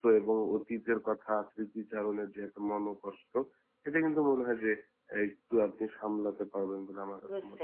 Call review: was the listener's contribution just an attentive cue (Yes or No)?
No